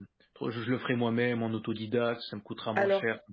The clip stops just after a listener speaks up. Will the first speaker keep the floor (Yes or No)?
No